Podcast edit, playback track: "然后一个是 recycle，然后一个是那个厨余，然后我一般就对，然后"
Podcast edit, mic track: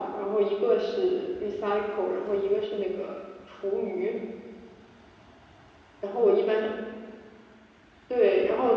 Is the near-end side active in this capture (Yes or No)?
No